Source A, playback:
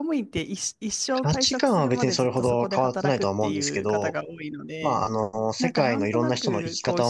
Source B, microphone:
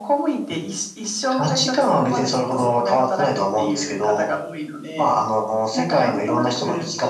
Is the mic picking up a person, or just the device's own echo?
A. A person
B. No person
B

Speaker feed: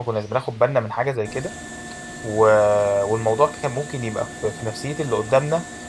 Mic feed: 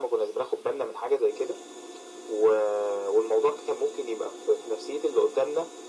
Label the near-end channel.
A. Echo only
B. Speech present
A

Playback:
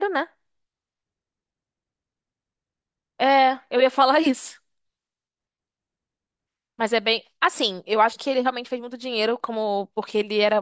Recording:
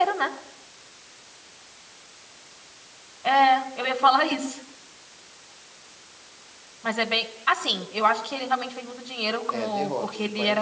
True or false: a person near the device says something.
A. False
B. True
B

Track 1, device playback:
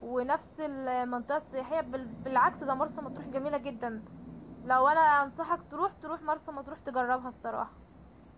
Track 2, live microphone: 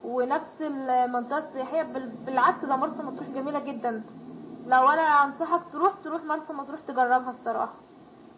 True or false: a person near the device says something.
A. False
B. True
A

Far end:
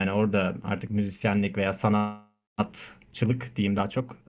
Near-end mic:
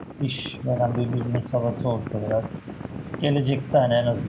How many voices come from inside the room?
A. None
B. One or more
B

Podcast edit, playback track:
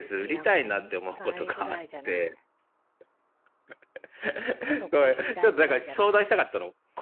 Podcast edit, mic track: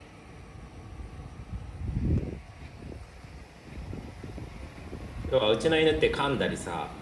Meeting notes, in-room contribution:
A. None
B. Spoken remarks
B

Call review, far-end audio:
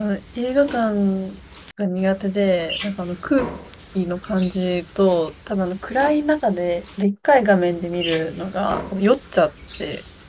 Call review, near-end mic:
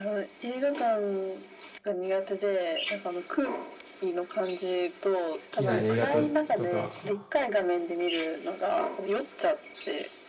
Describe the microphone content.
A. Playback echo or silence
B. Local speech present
B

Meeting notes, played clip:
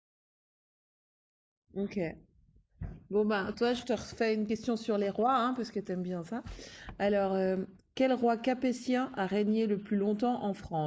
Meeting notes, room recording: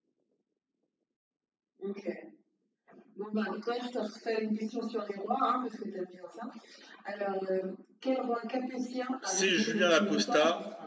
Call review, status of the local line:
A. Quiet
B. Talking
B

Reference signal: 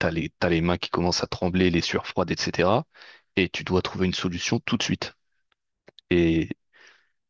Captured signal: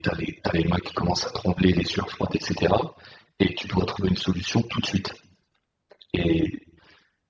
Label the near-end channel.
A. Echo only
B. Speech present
A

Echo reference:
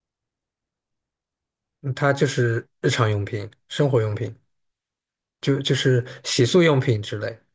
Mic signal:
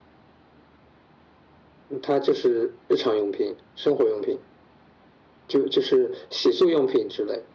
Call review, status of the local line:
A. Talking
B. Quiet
B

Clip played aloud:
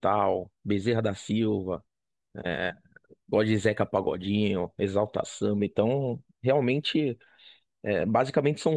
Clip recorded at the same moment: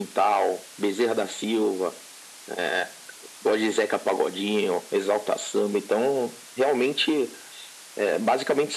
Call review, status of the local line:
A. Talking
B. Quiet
B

